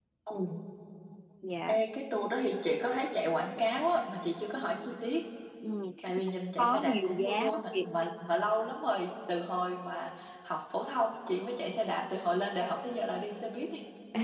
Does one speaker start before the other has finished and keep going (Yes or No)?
Yes